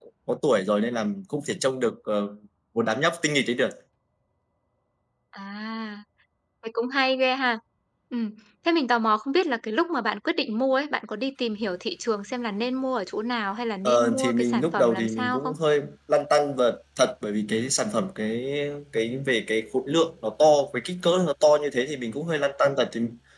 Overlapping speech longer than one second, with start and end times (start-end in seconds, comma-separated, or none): 13.8-15.5